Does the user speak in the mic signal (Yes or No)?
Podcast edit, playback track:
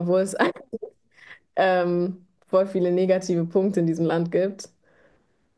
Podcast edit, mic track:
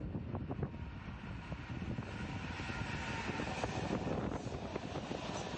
No